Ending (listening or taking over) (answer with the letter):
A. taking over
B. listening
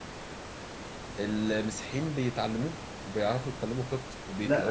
A